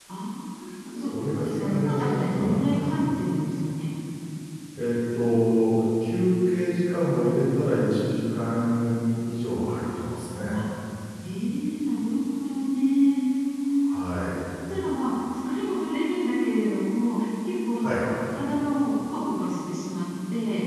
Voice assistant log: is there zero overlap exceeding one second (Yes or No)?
No